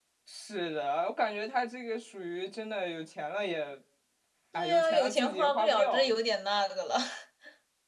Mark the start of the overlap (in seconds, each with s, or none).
4.6 s